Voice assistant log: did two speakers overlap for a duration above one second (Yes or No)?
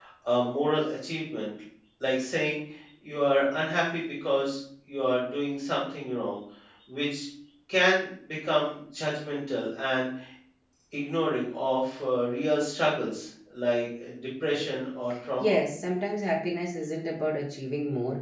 No